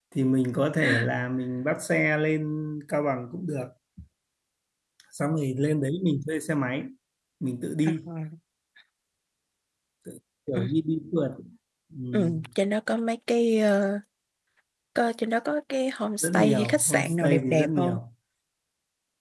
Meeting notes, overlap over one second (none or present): present